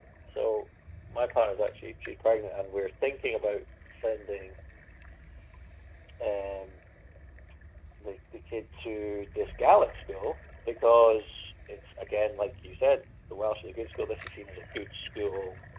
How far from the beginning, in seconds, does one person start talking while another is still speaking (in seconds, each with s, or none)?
none